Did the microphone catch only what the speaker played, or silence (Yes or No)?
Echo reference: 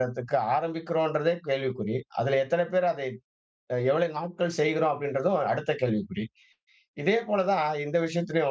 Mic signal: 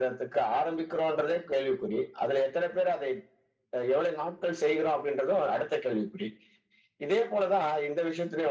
Yes